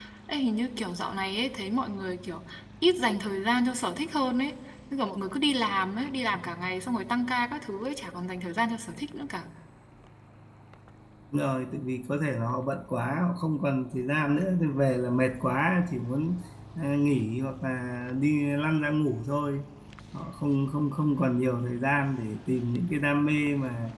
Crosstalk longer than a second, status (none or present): none